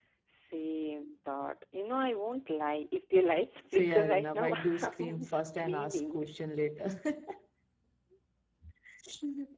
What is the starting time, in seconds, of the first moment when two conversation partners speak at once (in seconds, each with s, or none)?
3.7 s